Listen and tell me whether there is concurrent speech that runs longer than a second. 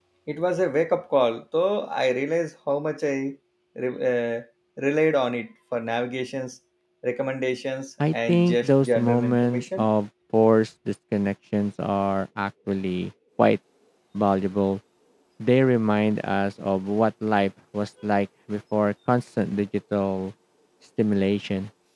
Yes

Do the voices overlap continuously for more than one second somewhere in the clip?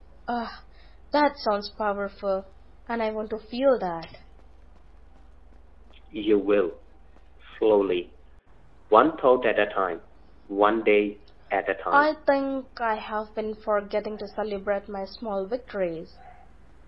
No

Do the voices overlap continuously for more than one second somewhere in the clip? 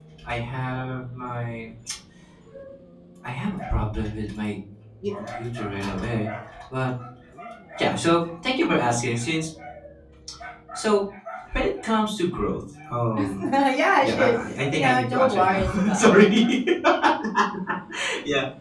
Yes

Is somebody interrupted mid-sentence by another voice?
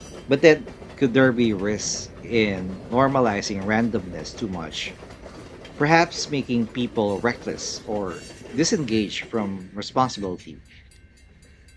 No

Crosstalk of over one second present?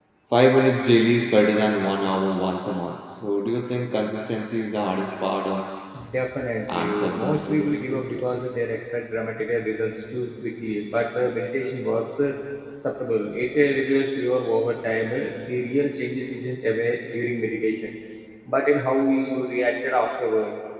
Yes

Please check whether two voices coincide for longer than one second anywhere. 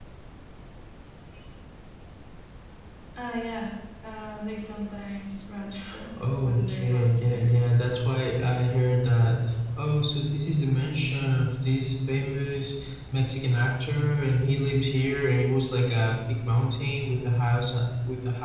Yes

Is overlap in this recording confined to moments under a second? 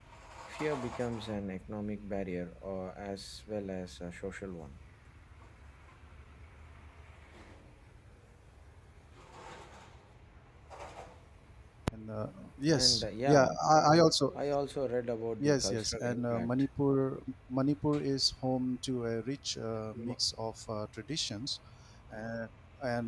No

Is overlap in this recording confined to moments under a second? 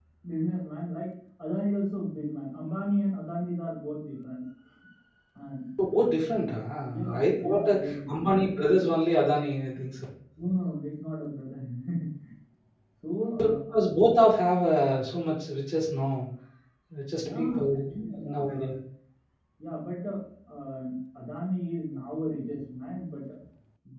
No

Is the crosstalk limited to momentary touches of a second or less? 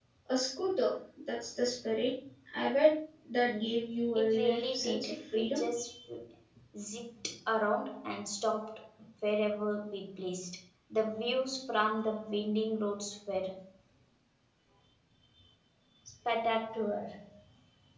No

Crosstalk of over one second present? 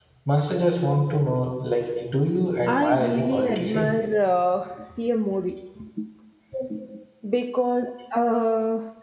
Yes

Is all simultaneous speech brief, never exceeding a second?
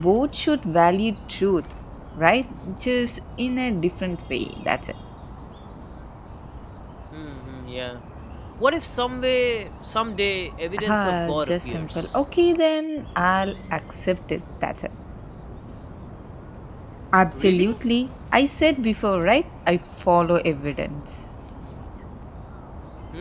No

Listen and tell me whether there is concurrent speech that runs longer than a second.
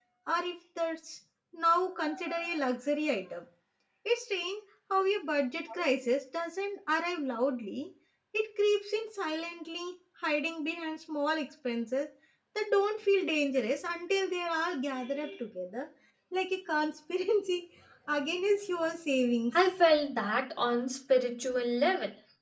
No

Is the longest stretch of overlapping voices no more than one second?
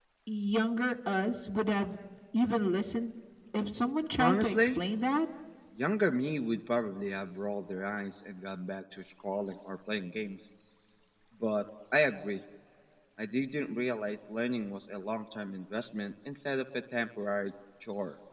Yes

